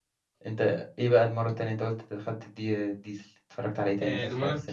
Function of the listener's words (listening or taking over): taking over